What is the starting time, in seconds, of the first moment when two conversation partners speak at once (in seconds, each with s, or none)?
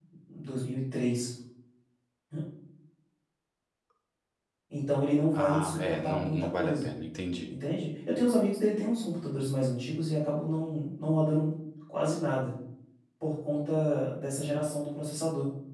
5.3 s